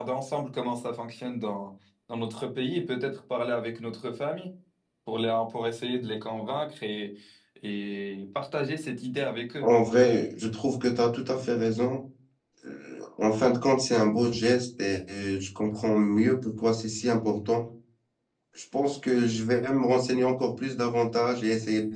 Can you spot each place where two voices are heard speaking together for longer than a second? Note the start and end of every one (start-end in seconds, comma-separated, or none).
none